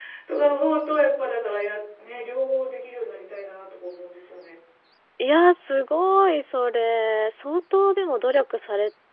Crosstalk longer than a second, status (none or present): none